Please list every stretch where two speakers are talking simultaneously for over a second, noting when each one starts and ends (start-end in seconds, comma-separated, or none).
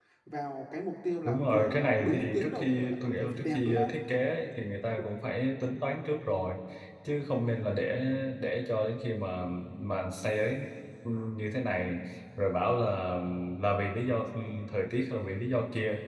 1.2-3.9